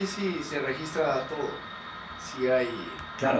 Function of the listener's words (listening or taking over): taking over